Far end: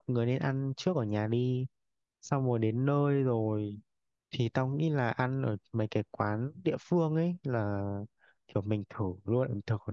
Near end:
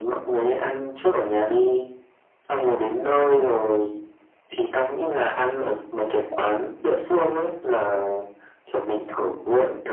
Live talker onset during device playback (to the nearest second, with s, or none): none